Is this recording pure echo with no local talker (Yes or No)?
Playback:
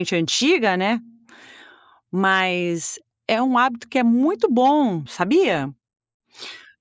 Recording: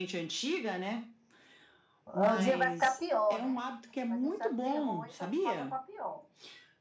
No